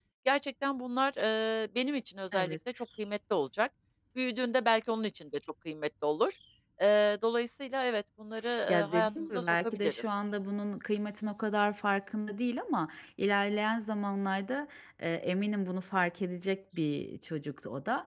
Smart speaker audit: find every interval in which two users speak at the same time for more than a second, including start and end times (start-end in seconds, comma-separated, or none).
8.7-10.0